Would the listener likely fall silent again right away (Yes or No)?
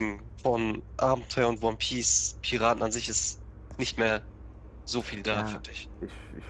No